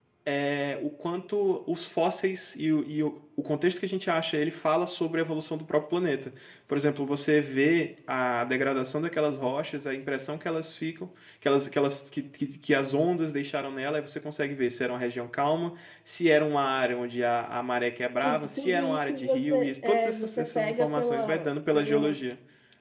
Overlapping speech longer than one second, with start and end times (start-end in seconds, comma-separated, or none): 18.2-22.2